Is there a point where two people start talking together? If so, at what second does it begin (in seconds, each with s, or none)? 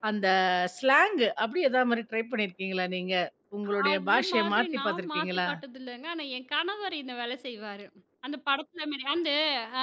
3.9 s